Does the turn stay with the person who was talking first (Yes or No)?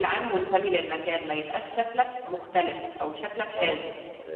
No